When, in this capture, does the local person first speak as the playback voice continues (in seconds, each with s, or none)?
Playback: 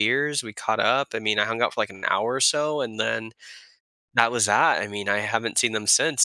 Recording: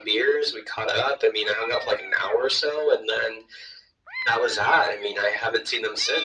none